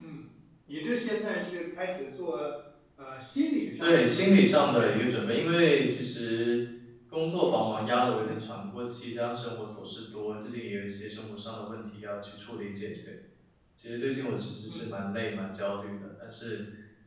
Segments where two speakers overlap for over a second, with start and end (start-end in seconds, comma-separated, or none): 3.8-5.0